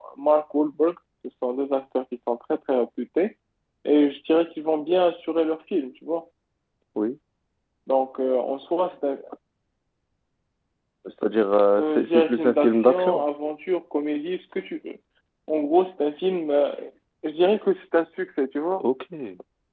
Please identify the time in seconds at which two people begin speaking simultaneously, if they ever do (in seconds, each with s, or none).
11.8 s